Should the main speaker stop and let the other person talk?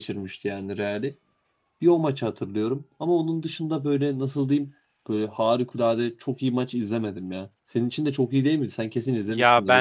Yes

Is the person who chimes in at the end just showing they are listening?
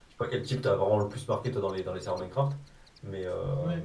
No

